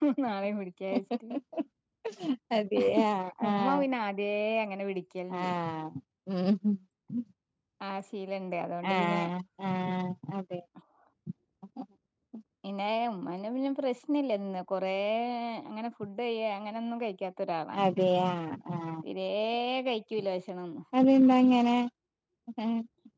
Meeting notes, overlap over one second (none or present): none